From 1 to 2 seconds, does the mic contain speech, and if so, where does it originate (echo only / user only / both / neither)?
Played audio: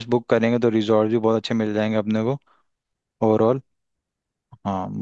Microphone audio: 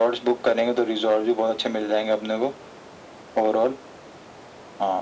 echo only